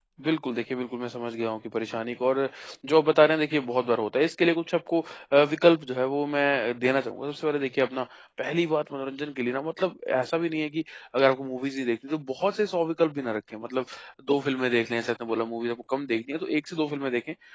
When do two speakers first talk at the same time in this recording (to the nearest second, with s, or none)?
none